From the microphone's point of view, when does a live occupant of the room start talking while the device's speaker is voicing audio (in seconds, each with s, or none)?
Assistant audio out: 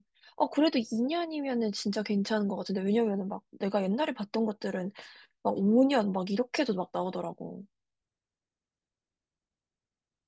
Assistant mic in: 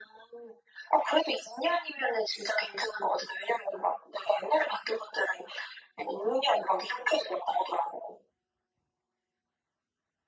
none